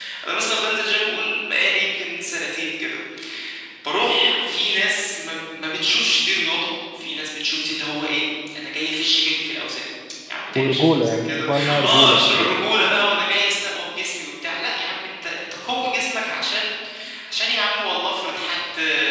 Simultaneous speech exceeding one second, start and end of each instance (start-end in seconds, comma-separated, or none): 10.6-12.5